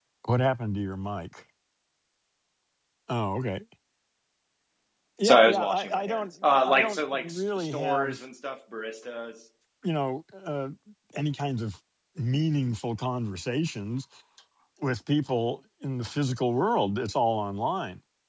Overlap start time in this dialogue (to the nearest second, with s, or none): 5 s